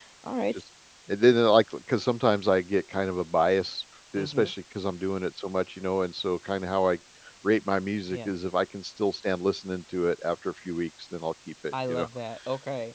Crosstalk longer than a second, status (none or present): none